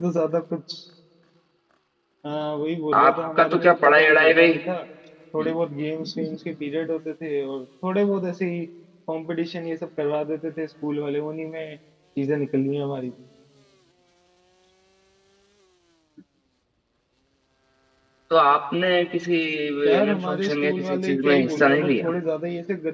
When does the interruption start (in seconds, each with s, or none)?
3.0 s